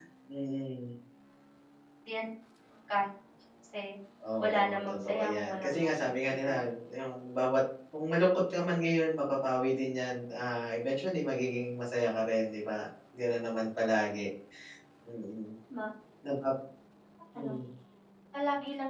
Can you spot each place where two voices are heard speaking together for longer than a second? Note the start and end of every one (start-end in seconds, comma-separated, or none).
4.4-6.6